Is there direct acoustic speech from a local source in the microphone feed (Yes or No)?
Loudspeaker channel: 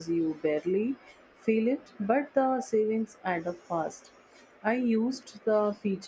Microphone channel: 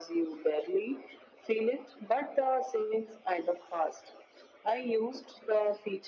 No